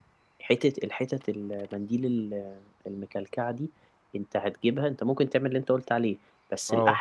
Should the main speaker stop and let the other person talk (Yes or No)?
No